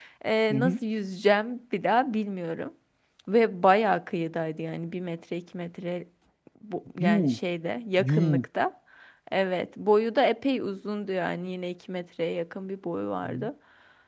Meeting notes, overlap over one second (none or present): none